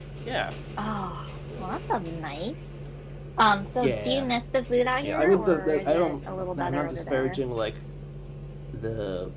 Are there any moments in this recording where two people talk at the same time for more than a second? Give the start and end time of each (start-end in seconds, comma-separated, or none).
5.0-7.4